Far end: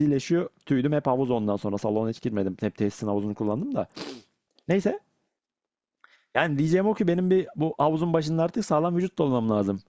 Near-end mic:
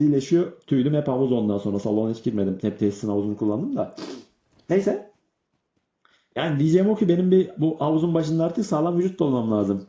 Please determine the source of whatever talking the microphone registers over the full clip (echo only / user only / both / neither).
echo only